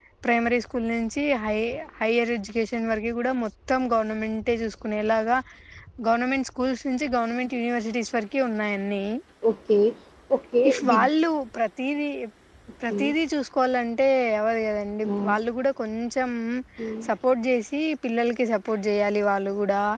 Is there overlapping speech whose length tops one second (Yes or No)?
No